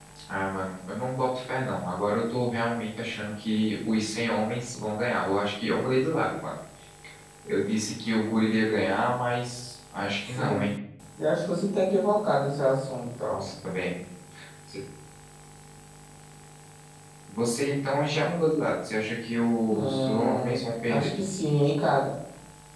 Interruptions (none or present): present